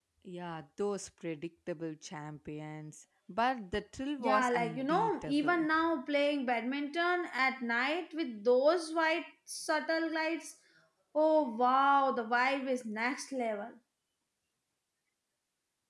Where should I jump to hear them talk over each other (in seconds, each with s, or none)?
4.2 s